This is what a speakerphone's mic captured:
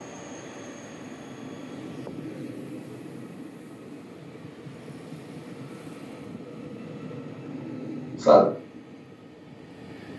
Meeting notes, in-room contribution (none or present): present